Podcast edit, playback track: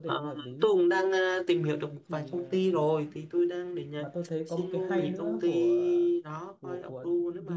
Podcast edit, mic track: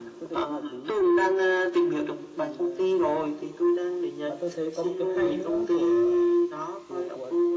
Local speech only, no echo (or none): none